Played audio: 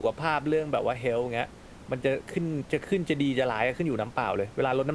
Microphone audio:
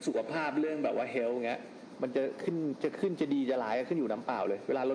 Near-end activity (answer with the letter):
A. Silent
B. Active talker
A